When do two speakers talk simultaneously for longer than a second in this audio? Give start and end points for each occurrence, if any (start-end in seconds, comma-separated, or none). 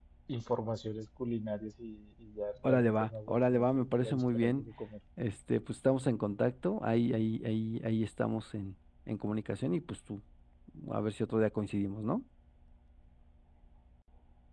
2.6-4.7